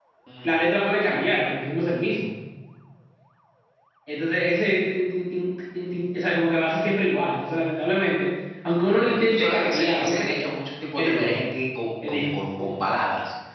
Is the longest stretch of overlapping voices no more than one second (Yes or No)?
No